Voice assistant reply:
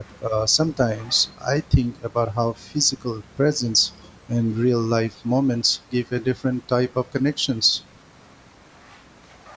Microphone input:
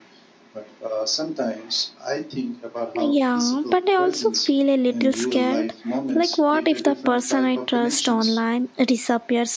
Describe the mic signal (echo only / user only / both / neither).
both